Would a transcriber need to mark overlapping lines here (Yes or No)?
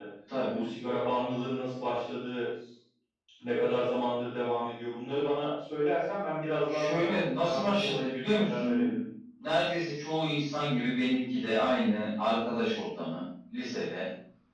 Yes